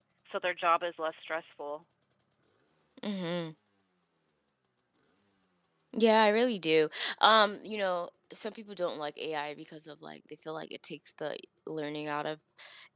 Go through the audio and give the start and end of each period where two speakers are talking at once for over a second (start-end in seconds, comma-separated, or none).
none